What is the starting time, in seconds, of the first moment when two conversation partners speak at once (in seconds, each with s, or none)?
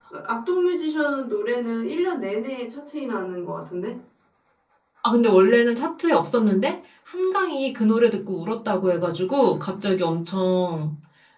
none